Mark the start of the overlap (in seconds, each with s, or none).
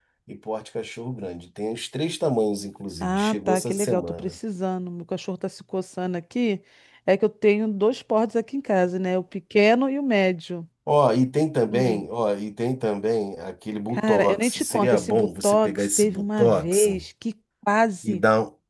3.0 s